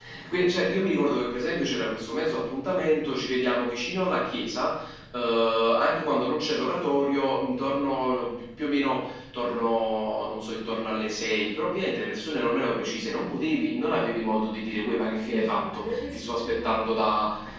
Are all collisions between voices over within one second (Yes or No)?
No